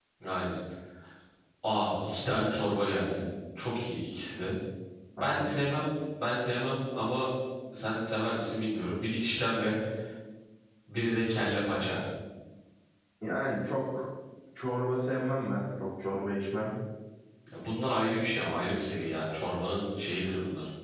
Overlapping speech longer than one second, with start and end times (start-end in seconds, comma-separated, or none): none